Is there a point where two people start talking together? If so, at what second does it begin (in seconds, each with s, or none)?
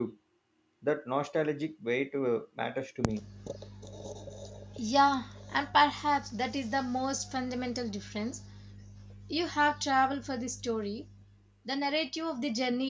none